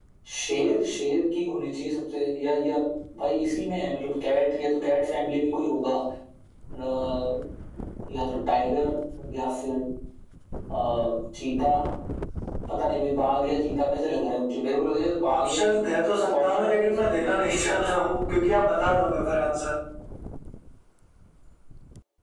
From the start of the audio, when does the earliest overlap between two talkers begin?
15.2 s

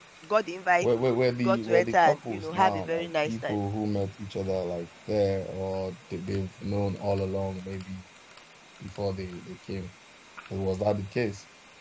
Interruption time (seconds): 1.4 s

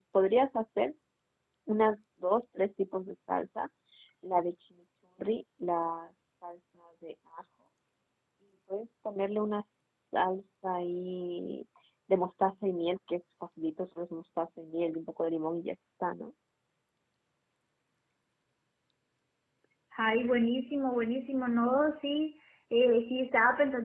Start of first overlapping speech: none

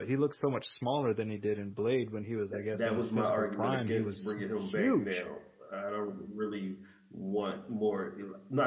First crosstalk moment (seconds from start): 2.5 s

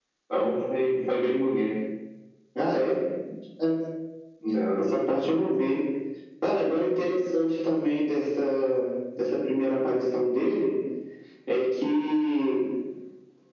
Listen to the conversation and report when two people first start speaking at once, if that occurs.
none

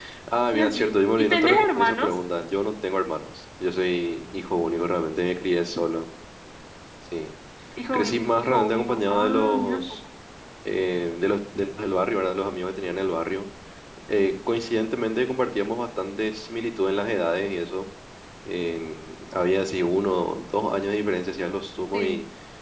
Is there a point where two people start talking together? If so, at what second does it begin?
0.5 s

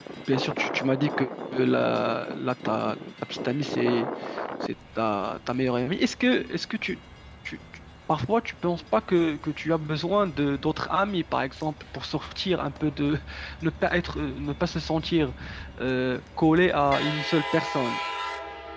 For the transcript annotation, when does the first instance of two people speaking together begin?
none

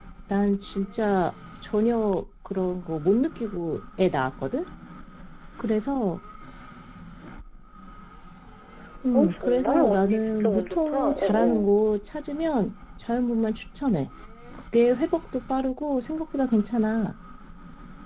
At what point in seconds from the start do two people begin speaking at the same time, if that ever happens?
9.1 s

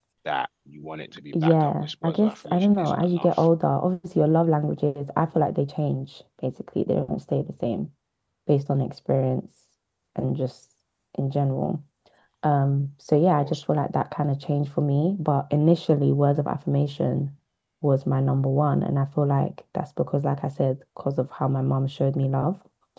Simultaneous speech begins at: 1.4 s

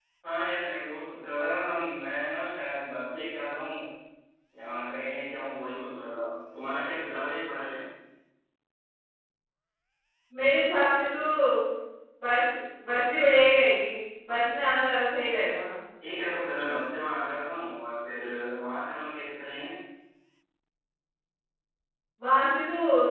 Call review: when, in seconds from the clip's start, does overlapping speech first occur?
none

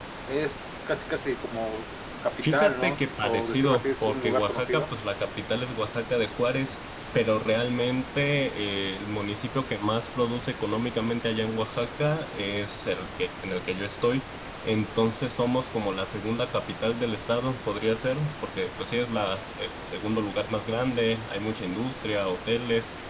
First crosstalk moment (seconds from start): 2.4 s

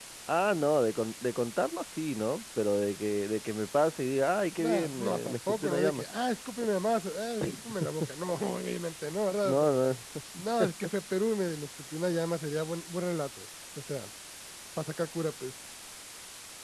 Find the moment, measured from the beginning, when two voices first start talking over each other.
4.6 s

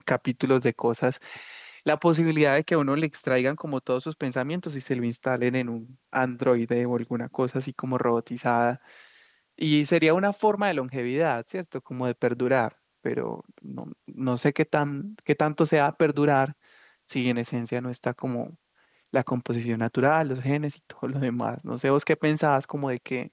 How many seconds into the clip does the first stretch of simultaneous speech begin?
none

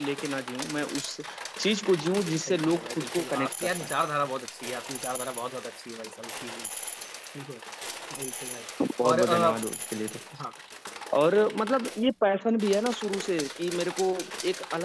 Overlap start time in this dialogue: 2.4 s

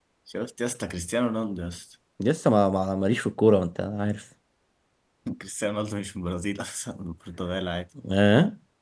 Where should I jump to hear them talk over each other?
none

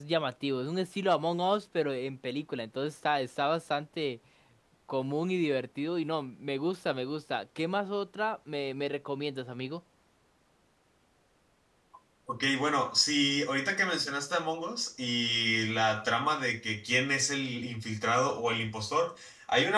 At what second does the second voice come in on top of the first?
none

